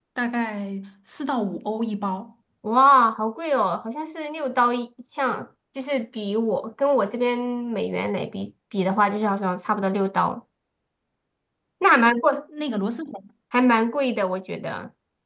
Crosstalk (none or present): none